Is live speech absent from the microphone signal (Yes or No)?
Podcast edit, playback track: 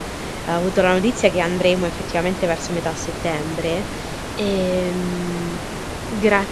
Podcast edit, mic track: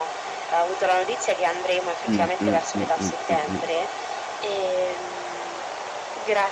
No